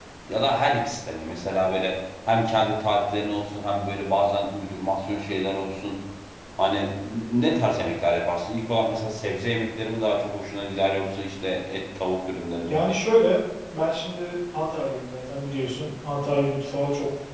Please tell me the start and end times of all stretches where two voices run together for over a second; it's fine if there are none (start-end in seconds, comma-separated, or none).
none